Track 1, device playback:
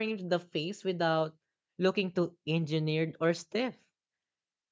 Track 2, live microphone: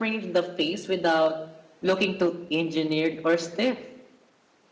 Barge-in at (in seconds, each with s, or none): none